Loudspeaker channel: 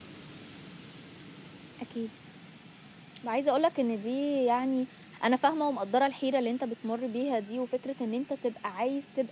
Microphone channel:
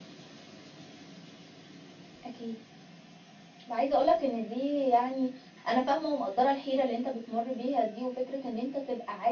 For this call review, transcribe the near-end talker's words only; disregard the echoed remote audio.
none

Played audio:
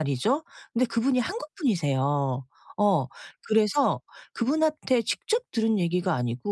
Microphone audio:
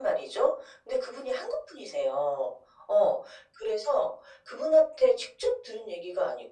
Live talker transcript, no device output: none

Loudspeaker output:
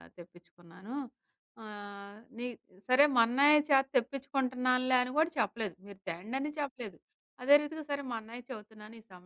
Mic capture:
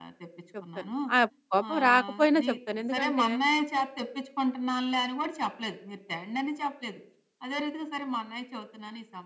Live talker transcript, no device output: చెప్తాను. ఆ! కోపం రాకపోయినా చెప్తాను. ఎందుకంటే

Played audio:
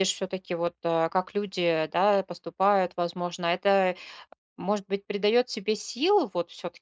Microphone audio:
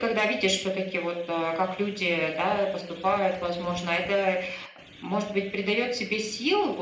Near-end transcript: none

